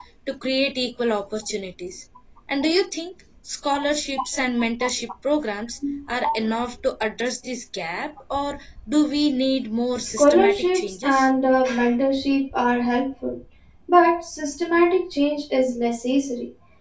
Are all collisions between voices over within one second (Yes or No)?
No